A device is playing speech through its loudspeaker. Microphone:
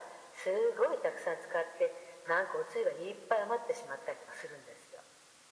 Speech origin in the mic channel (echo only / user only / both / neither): echo only